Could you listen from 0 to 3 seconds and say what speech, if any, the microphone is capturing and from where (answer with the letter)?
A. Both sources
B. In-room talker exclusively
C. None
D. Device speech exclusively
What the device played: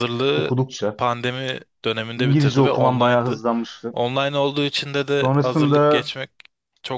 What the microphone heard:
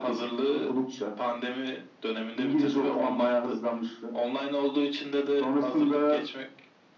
D